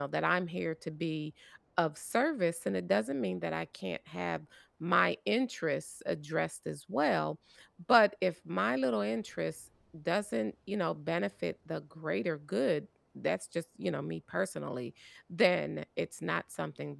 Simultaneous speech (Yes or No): No